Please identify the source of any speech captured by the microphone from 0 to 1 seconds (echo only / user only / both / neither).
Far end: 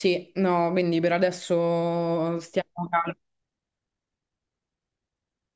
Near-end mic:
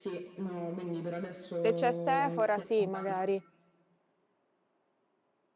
echo only